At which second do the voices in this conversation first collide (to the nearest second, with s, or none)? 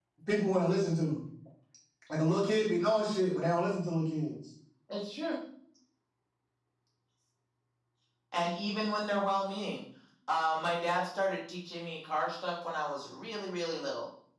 none